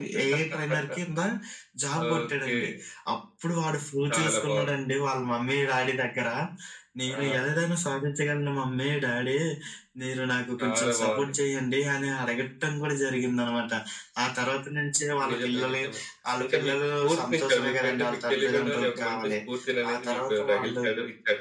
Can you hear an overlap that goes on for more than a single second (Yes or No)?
Yes